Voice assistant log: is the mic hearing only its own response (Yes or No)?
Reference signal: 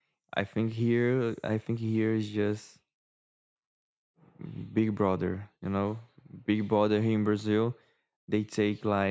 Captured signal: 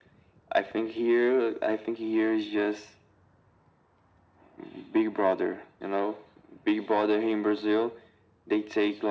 Yes